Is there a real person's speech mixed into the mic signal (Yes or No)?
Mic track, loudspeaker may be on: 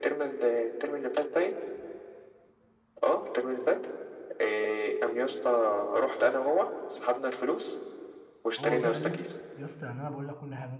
Yes